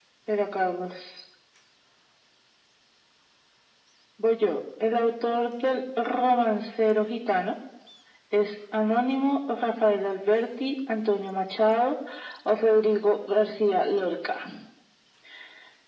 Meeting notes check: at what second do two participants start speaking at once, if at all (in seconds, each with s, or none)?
none